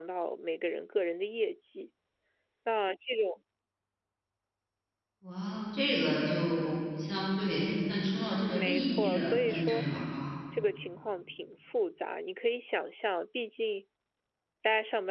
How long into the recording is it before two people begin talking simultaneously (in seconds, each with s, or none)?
8.5 s